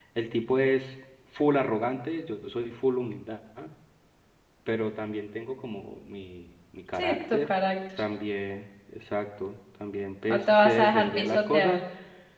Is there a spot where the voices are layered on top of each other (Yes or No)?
Yes